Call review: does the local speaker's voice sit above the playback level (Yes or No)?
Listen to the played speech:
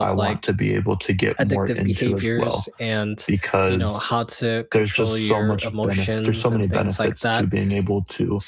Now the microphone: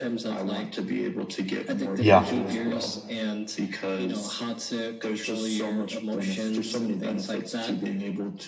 Yes